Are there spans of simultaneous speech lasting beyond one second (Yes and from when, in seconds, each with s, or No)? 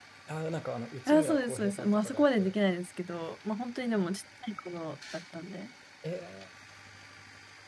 Yes, from 1.1 s